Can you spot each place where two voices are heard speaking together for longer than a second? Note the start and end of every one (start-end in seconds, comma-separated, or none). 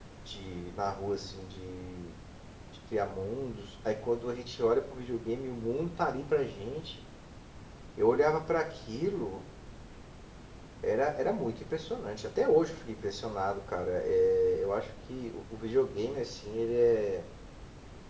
none